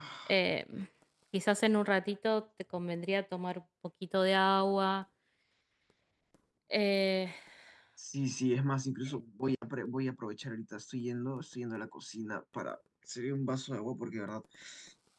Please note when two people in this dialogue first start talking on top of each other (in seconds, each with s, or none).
none